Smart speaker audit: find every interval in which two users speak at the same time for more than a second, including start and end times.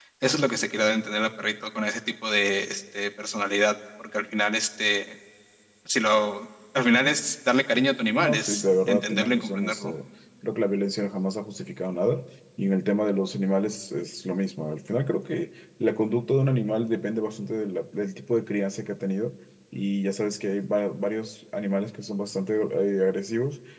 8.2-9.9

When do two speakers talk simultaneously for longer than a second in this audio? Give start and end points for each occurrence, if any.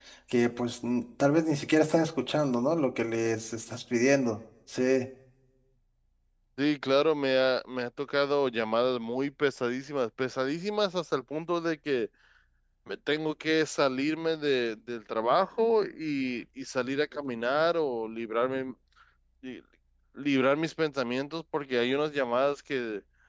none

